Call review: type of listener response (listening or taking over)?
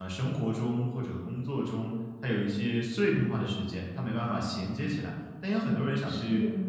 listening